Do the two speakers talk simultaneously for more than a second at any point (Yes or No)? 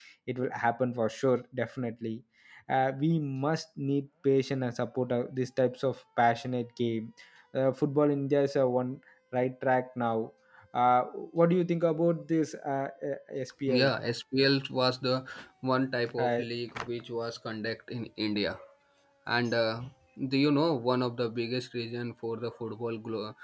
No